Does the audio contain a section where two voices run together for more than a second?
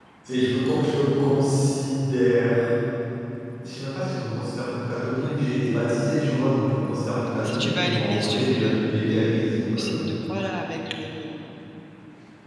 Yes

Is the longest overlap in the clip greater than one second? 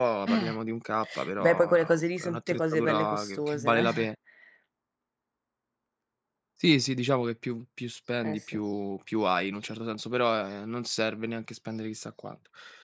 Yes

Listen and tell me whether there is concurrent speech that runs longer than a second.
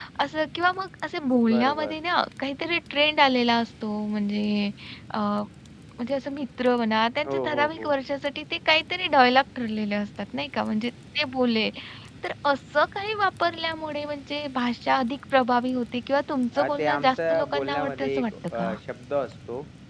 Yes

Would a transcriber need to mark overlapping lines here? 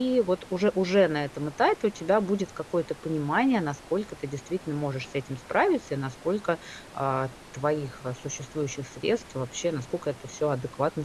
No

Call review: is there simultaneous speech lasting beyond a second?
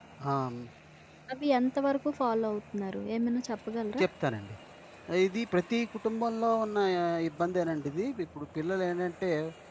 No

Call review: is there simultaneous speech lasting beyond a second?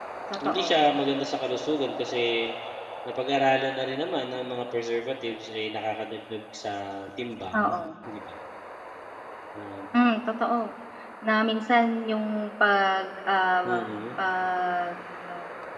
No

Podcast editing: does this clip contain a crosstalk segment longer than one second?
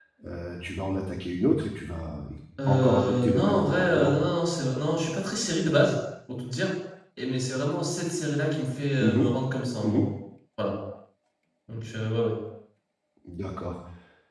Yes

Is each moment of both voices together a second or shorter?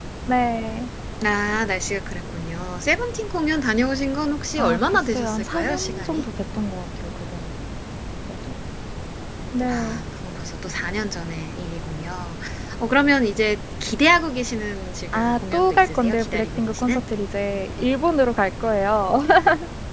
No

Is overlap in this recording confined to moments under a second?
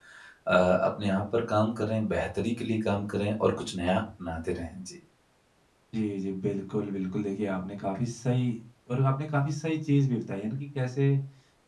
Yes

